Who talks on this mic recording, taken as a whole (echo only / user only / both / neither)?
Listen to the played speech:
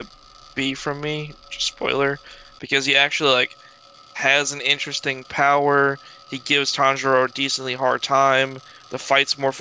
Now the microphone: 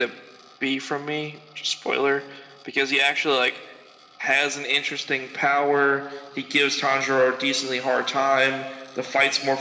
echo only